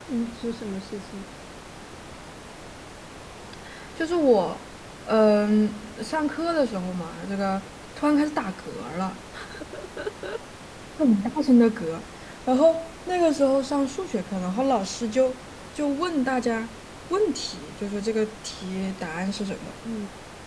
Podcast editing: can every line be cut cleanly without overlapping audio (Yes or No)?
Yes